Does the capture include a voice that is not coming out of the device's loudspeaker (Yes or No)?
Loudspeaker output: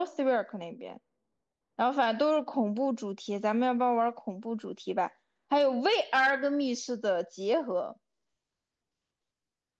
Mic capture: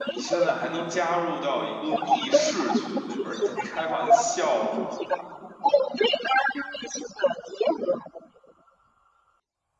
Yes